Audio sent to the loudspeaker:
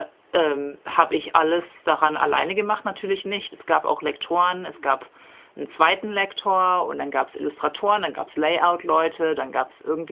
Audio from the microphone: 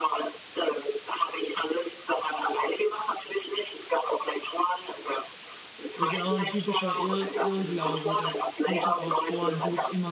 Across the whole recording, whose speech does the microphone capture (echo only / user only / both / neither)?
both